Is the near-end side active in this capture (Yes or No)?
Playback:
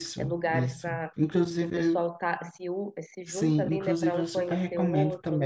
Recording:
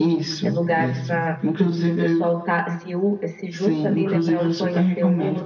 No